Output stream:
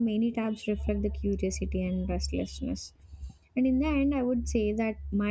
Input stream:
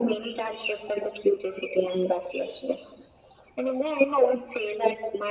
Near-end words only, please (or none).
none